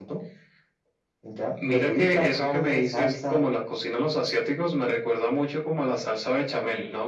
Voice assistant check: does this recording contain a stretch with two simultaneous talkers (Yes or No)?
Yes